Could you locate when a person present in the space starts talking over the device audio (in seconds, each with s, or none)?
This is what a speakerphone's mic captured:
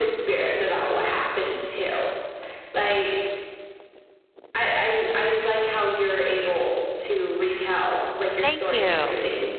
8.4 s